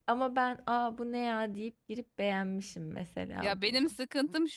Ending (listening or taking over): taking over